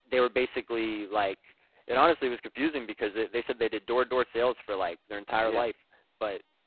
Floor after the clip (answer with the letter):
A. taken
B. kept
B